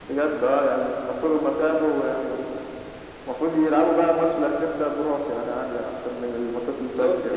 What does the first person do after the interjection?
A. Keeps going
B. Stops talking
B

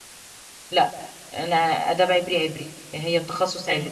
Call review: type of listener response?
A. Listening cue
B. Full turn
B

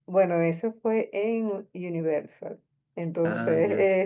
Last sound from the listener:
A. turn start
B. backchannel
B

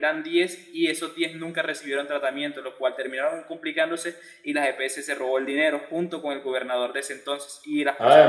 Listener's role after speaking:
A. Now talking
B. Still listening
B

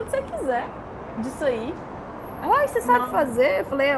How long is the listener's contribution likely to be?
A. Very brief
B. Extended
A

